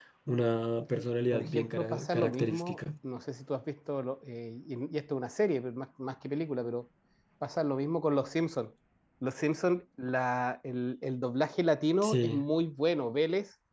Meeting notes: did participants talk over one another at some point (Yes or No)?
Yes